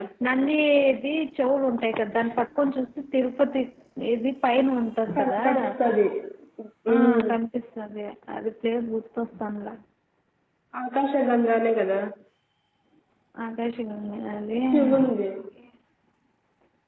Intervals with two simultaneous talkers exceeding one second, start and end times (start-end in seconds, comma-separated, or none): none